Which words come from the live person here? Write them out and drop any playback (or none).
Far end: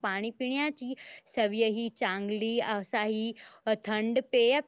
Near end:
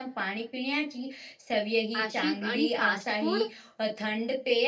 आशिफ आणि फास्ट फूड.